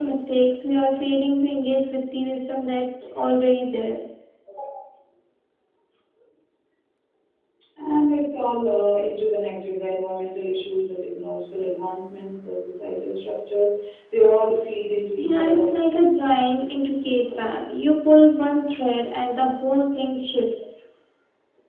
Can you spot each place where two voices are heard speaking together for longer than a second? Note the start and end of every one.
none

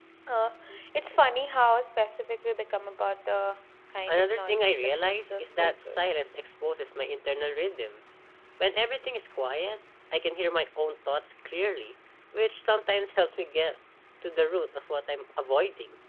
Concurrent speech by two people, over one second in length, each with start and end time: 4.1-6.2

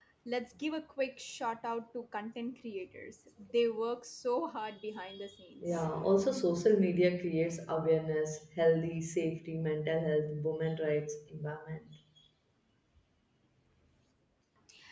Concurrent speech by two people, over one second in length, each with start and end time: none

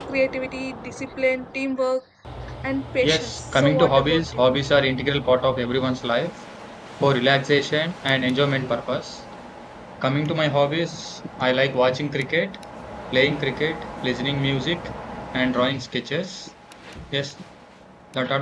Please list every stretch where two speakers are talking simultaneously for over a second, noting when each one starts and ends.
3.0-4.4

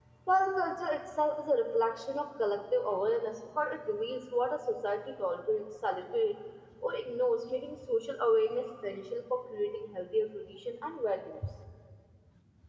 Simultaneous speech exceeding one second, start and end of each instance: none

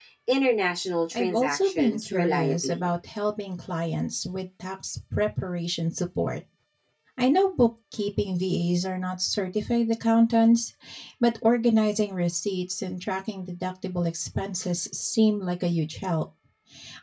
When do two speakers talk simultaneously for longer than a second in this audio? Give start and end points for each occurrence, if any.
1.1-2.9

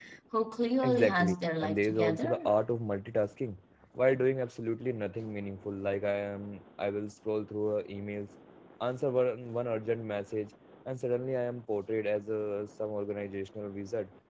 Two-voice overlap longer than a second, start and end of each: 0.8-2.5

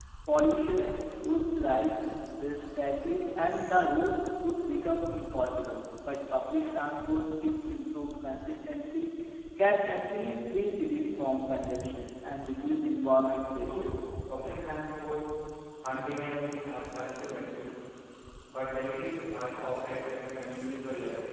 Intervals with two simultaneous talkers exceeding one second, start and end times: none

